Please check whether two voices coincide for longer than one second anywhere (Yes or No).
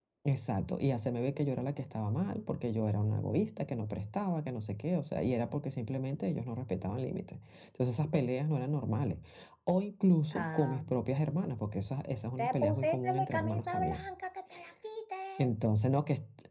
Yes